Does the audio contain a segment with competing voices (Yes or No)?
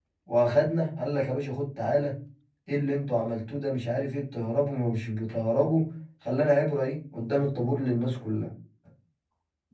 No